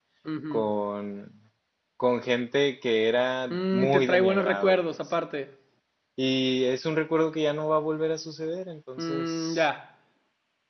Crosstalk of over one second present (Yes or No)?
Yes